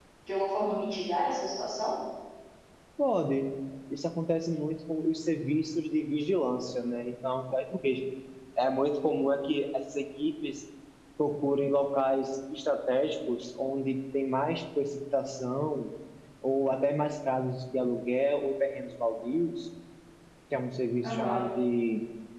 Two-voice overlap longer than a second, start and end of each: none

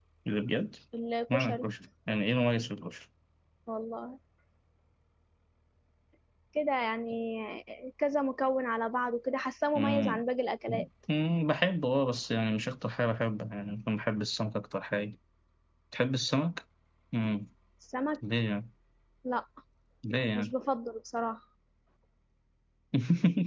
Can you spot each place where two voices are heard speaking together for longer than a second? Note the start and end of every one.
none

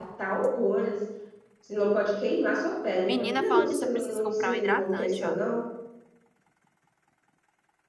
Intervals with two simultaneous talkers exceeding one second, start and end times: 3.1-5.4

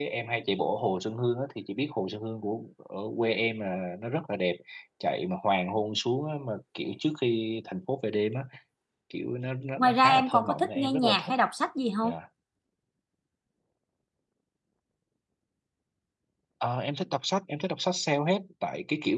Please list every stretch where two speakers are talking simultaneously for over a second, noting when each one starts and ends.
9.8-11.3

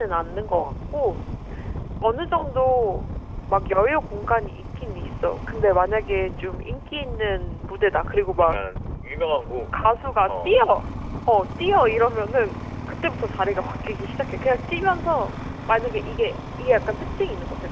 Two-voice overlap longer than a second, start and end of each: none

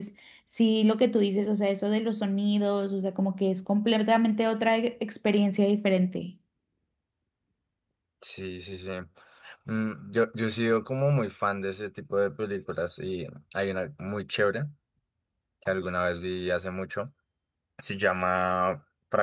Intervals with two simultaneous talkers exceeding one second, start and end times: none

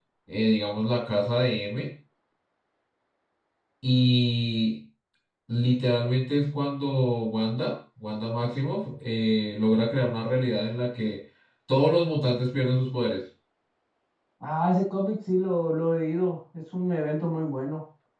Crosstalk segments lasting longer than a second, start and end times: none

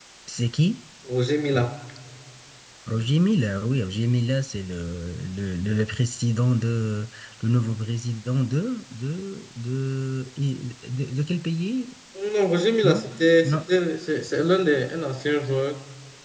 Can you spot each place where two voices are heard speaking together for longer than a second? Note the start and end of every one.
none

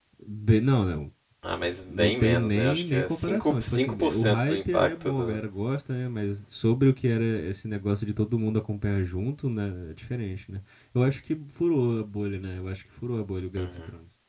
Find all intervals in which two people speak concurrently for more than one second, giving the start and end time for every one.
1.9-5.4

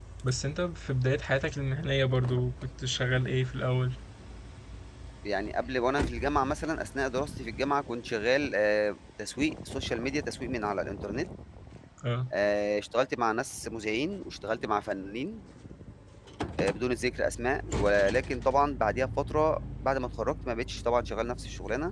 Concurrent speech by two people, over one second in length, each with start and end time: none

